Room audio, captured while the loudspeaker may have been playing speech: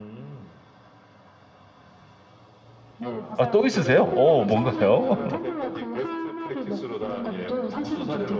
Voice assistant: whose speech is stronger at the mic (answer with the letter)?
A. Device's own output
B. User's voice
B